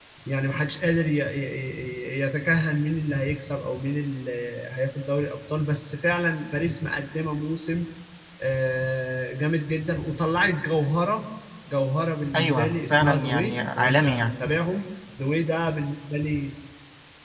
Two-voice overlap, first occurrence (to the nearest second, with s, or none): 12 s